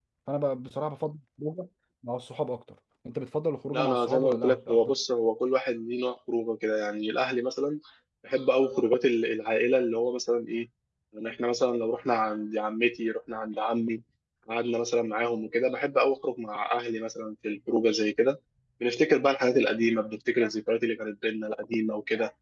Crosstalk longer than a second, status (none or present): present